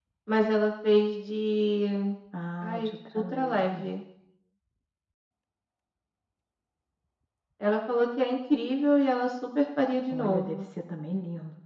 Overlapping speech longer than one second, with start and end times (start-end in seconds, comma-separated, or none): 2.6-3.9